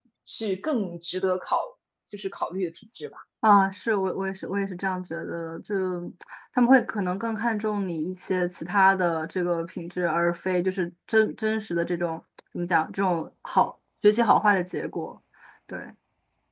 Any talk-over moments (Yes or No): No